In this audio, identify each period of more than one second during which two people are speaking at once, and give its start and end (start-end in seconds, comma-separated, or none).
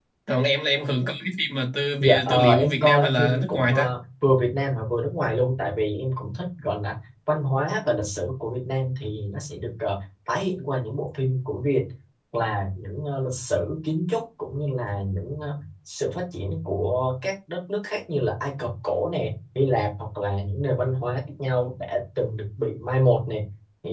2.0-3.9